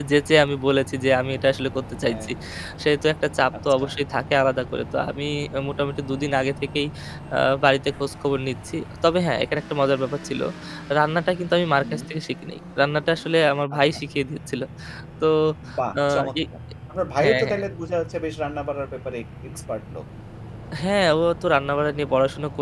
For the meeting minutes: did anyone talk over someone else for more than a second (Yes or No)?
No